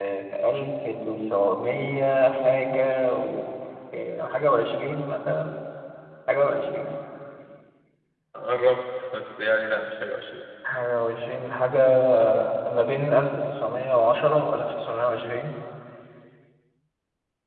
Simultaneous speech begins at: none

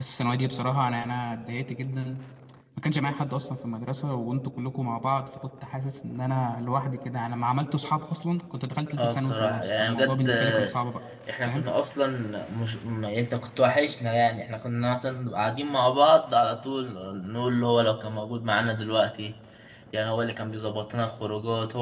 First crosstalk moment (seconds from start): 9.0 s

